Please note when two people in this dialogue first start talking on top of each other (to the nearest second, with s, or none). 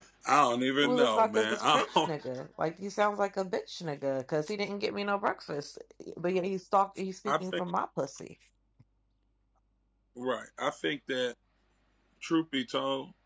1 s